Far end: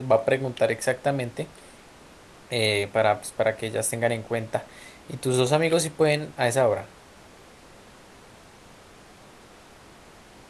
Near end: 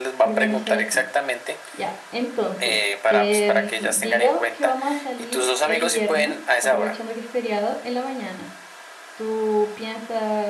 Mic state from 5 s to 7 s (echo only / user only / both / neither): both